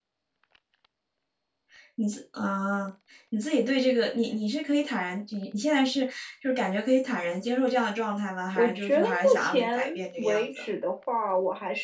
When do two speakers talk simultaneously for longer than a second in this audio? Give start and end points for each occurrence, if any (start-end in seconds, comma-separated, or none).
8.6-10.6